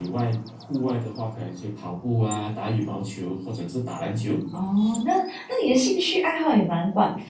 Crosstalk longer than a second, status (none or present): none